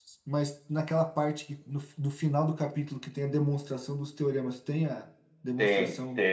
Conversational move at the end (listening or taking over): taking over